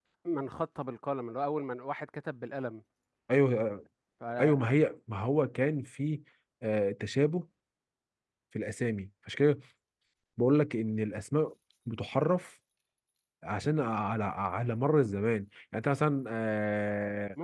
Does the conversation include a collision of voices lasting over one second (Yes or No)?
No